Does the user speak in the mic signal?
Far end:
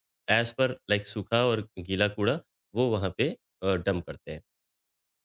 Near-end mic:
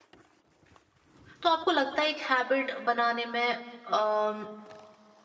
Yes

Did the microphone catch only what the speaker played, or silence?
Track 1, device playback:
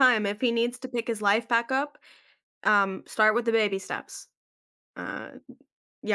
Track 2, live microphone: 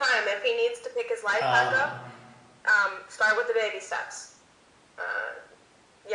No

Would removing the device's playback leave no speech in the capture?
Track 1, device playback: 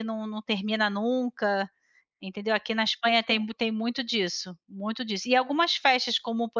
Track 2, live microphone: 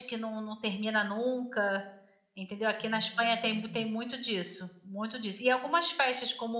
No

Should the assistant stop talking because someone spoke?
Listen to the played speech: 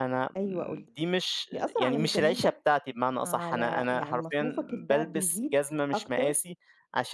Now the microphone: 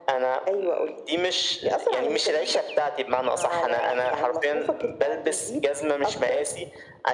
No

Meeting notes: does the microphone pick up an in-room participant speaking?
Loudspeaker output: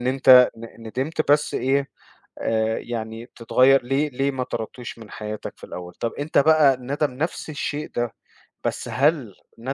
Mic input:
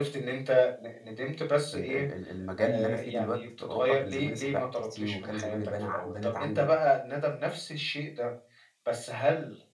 Yes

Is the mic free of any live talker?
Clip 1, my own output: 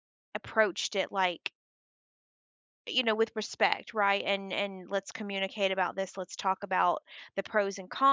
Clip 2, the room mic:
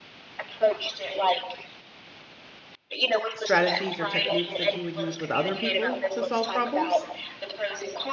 No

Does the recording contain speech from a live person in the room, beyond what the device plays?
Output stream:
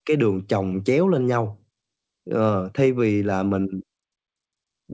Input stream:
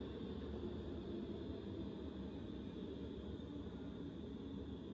No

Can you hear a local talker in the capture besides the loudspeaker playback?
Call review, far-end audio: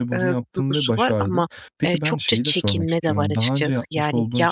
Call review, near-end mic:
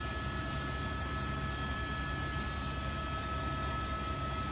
No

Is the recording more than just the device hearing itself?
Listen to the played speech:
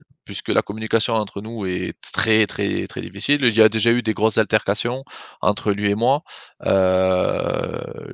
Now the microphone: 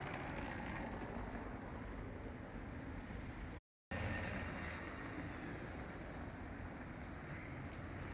No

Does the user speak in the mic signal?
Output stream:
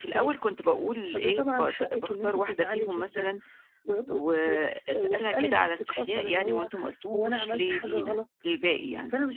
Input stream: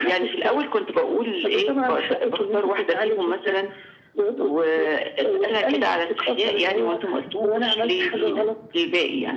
No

